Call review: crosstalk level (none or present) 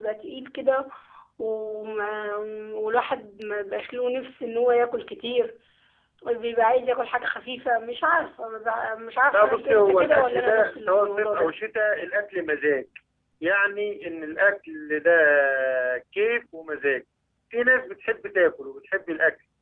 present